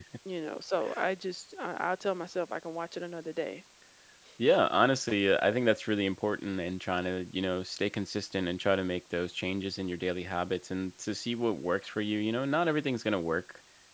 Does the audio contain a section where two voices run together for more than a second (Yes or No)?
No